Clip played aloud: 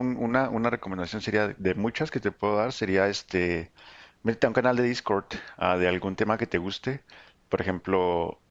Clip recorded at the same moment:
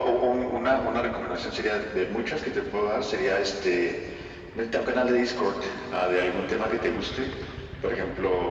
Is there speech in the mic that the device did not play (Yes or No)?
No